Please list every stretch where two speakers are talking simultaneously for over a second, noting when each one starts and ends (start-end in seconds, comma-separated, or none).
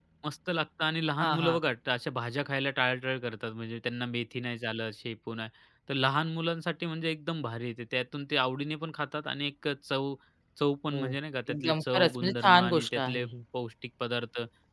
11.5-13.3